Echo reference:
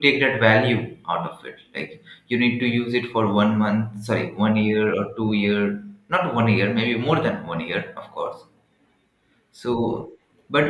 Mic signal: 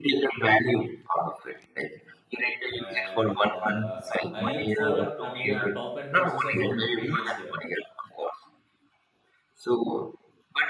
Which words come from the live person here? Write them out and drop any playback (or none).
and uh, I looked for a, I mean, a top end processor from the previous year.